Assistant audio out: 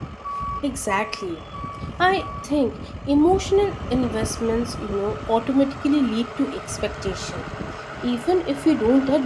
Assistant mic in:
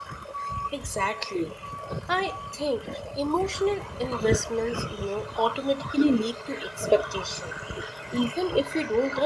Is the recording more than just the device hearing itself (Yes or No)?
No